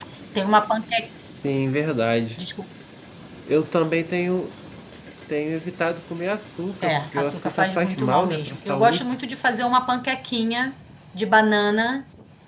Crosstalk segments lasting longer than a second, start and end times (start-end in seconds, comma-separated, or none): 6.8-9.1